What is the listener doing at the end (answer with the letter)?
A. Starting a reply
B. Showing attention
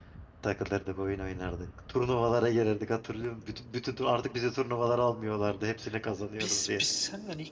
A